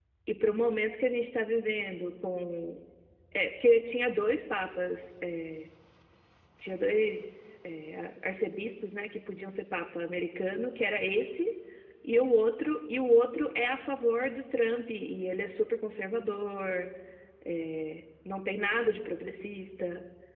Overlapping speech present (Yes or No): No